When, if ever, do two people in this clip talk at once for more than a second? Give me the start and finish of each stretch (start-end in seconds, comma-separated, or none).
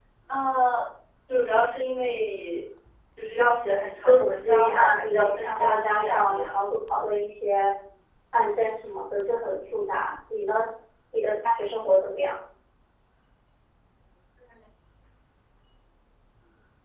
4.0-6.6